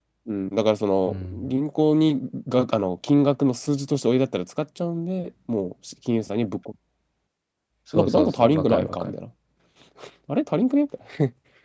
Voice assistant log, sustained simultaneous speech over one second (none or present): present